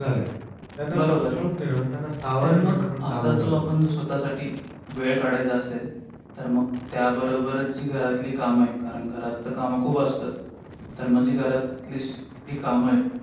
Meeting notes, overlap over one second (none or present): present